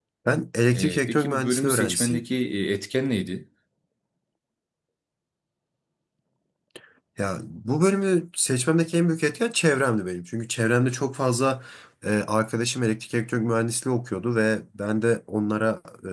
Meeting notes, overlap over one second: present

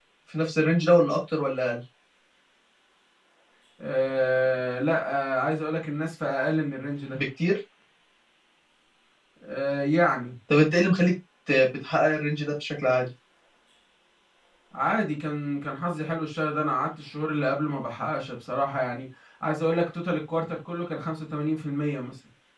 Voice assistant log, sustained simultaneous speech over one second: none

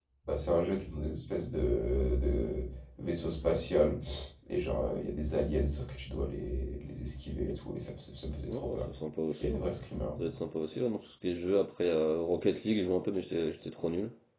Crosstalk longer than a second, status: none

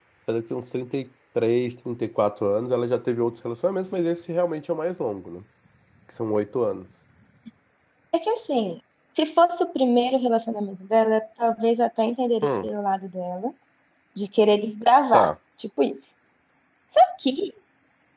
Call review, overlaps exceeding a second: none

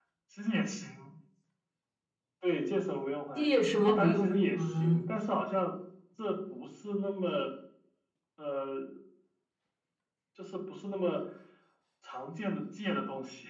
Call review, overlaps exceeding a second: present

